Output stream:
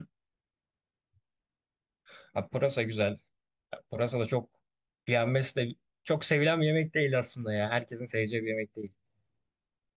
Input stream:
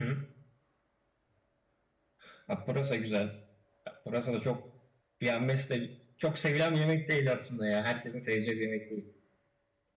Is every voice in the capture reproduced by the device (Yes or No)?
Yes